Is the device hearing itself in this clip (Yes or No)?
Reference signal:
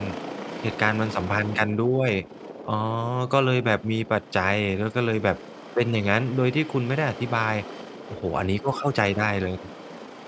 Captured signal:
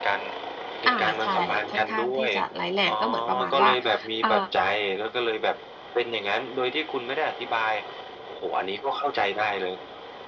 Yes